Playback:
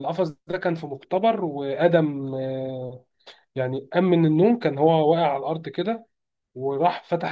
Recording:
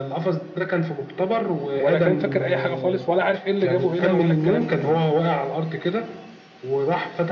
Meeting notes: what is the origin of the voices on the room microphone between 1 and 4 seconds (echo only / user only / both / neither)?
both